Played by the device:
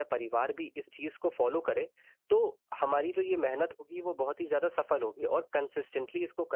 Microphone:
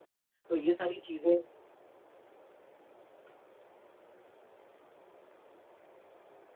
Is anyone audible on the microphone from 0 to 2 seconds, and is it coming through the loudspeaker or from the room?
user only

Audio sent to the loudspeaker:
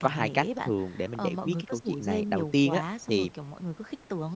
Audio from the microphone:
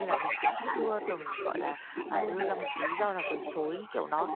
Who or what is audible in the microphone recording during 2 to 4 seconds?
both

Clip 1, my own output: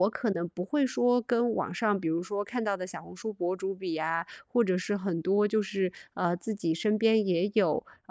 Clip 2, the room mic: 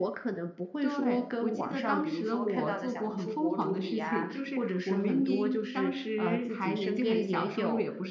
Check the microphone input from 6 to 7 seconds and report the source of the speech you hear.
both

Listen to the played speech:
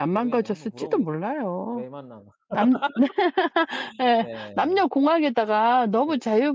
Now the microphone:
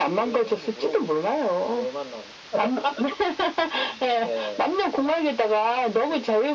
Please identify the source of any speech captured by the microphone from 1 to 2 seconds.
echo only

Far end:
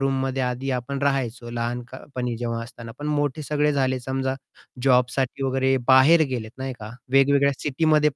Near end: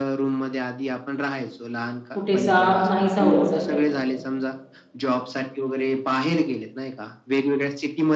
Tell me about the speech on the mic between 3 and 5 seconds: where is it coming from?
both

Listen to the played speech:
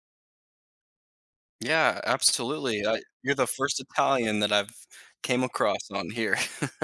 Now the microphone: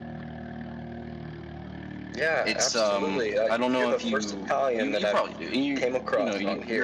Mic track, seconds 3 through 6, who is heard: both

